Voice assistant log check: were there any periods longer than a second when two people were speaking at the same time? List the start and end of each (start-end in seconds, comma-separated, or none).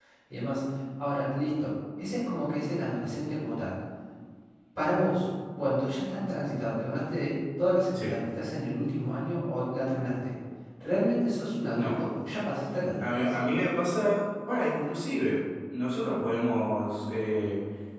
none